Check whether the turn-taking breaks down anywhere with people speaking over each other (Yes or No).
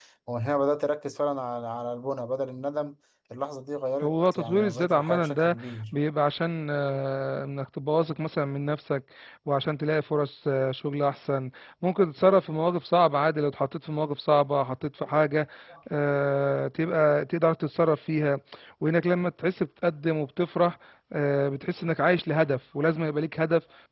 Yes